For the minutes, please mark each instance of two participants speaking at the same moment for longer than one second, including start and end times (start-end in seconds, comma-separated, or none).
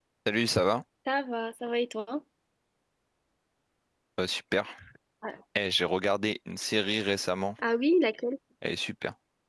none